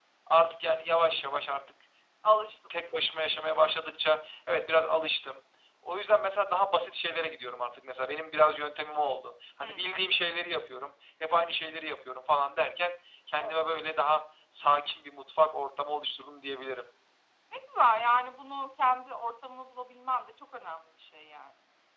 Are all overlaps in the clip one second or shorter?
Yes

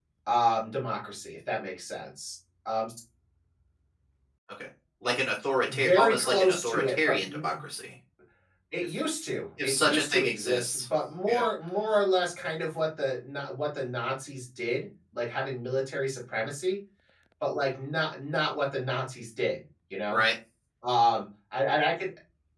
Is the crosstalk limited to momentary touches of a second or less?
No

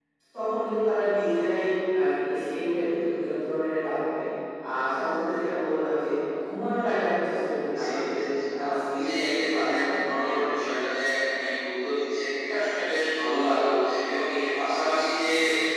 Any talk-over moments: Yes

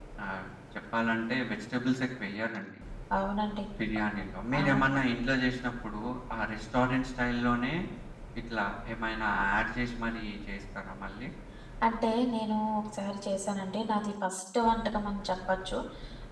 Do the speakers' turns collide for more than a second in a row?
No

